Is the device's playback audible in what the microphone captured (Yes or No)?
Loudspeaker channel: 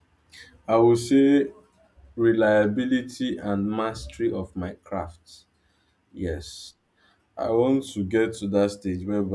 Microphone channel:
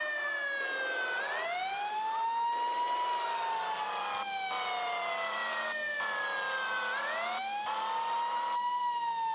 No